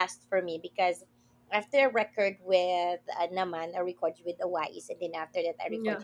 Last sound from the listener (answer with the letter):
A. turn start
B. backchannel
B